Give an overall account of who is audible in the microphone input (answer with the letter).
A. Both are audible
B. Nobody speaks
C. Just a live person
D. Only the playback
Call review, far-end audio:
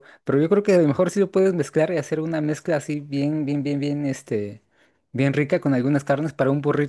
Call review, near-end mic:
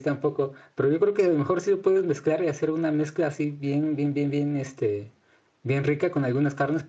D